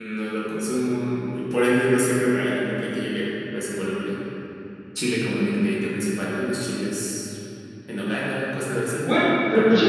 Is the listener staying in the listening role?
No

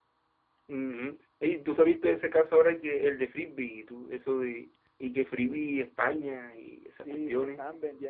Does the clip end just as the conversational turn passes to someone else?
Yes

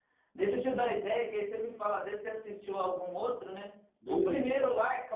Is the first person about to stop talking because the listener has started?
No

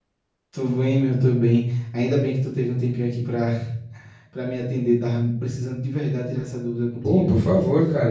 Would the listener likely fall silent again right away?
No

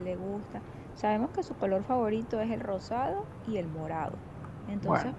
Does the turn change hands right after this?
No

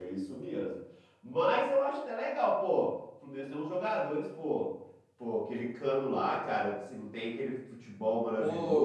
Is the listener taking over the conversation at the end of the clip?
Yes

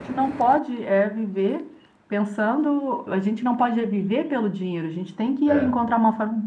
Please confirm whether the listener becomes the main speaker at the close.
No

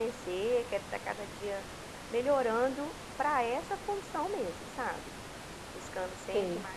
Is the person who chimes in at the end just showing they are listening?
Yes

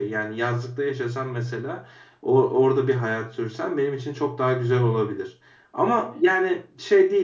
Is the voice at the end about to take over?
No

